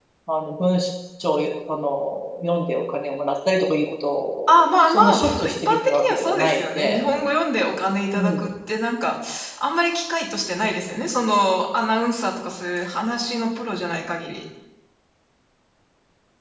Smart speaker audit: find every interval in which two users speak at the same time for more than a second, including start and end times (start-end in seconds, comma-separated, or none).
4.5-7.0